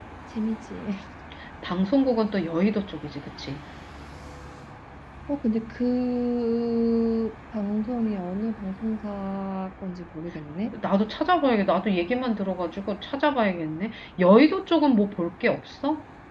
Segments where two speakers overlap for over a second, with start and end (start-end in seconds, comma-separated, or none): none